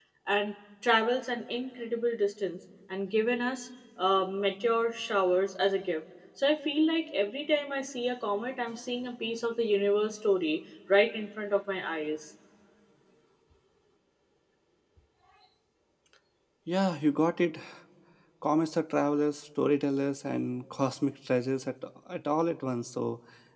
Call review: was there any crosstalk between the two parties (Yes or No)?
No